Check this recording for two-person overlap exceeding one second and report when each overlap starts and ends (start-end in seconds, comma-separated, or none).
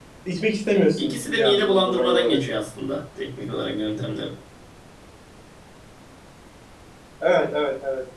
1.0-2.4